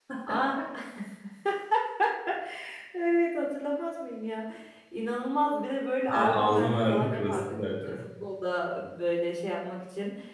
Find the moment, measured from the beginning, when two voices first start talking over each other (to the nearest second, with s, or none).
6 s